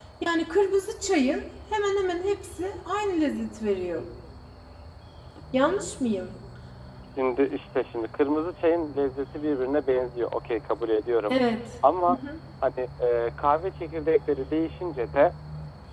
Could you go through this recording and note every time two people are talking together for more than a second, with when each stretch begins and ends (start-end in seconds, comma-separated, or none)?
none